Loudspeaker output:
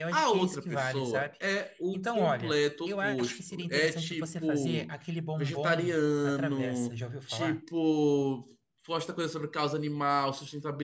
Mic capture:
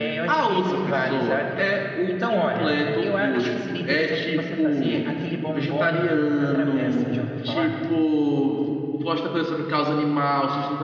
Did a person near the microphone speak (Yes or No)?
No